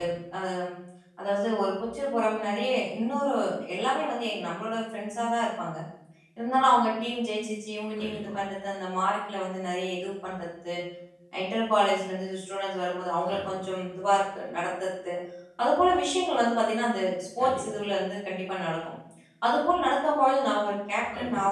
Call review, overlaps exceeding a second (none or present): none